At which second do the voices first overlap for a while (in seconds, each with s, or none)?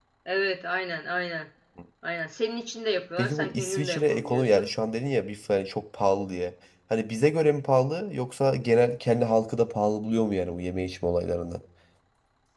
3.2 s